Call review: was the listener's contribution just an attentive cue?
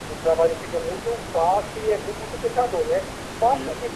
Yes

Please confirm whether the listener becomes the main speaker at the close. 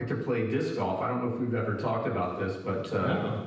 No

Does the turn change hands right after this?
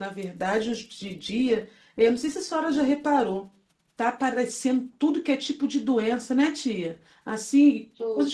No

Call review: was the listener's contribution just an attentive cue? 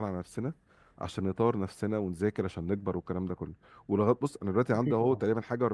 Yes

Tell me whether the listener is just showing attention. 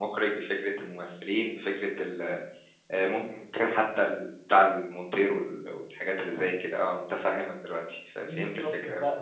No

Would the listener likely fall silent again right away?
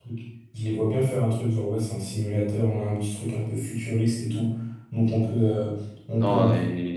No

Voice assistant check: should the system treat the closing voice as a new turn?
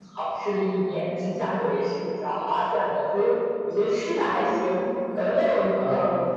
No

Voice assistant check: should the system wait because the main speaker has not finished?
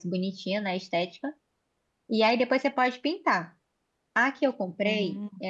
Yes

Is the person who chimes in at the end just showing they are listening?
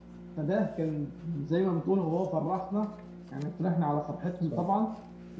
Yes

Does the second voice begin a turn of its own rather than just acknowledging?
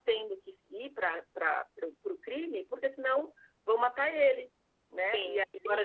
Yes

